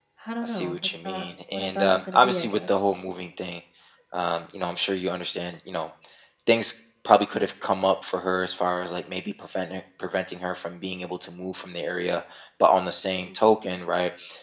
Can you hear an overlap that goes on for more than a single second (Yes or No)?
Yes